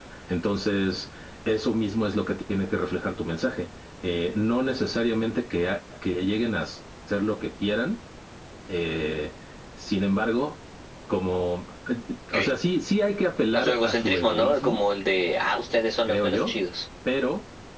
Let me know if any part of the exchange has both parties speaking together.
Yes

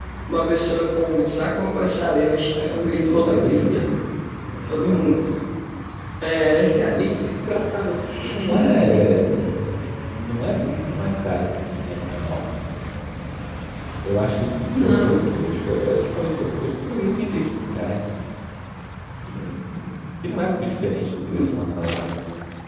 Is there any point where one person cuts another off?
Yes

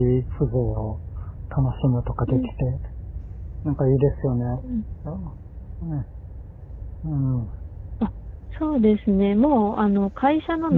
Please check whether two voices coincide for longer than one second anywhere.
No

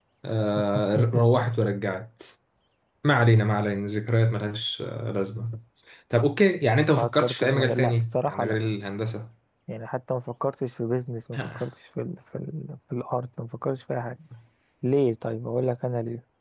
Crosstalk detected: Yes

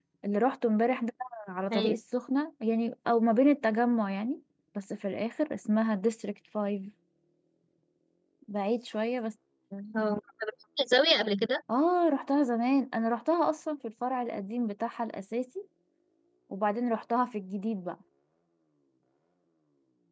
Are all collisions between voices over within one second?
Yes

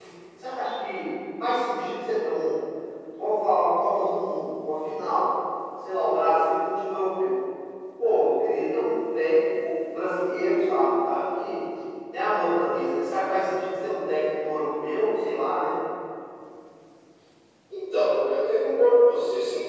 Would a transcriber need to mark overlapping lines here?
No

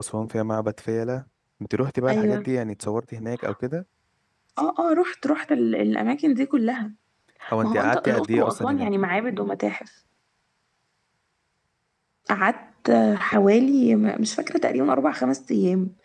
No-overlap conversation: No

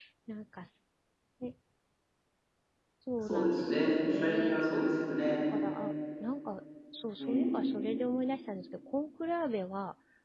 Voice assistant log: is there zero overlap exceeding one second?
No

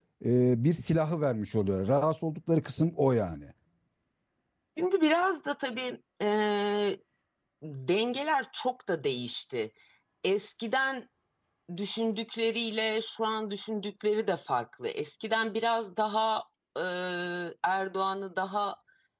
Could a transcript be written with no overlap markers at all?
Yes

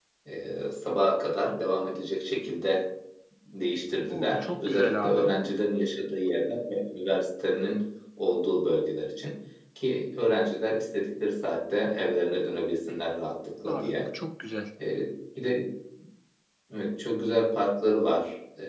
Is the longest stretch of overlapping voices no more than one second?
No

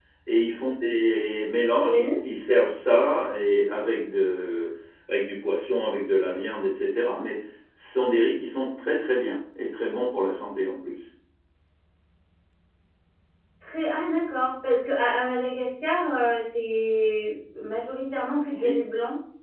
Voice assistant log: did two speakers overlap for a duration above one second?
No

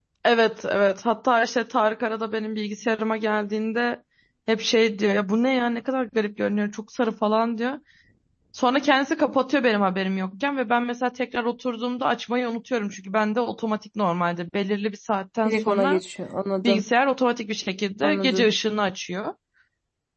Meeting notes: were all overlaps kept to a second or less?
Yes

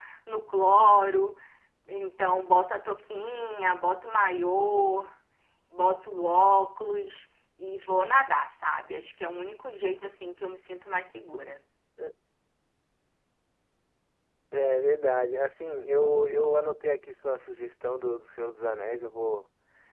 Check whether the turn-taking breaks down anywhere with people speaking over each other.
No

